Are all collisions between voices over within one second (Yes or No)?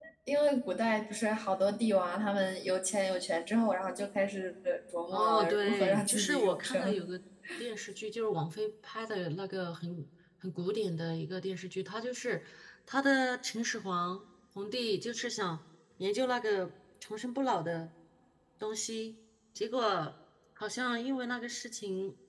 No